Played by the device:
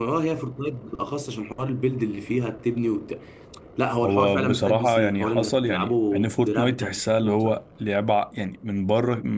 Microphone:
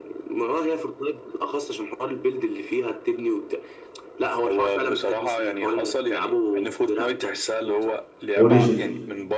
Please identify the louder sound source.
user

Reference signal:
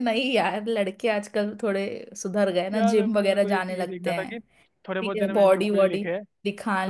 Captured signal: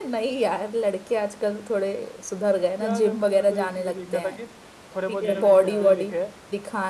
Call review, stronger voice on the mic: echo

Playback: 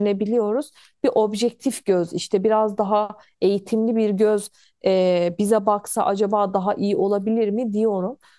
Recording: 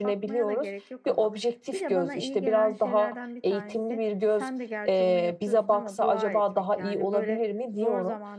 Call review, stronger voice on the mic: echo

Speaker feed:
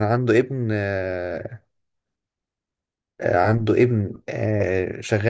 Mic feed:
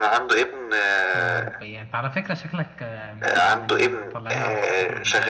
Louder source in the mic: echo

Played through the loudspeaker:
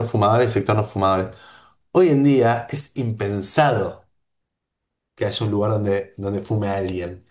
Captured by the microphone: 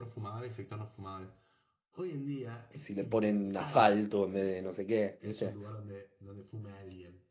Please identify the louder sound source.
user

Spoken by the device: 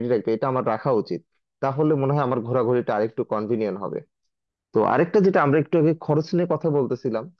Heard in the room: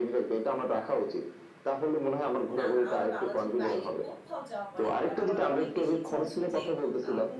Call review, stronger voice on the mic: echo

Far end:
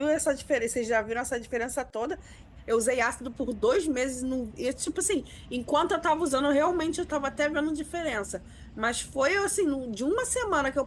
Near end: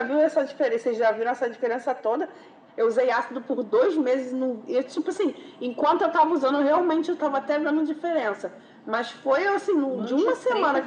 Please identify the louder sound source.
echo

